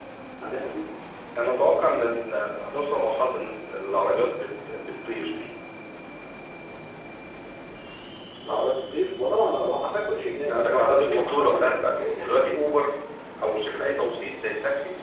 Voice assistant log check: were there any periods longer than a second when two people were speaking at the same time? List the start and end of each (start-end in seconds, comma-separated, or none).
10.4-12.5